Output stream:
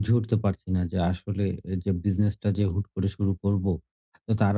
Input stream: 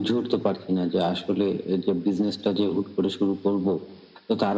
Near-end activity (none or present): none